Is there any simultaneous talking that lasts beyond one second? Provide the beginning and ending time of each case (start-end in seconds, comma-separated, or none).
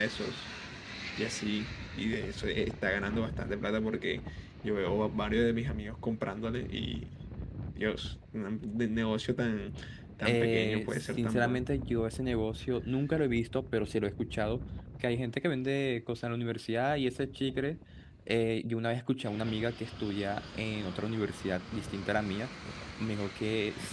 10.3-11.6